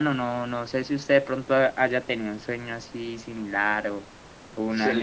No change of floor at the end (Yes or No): No